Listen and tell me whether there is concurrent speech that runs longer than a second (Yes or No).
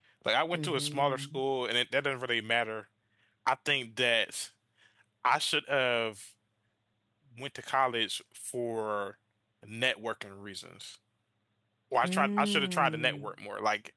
Yes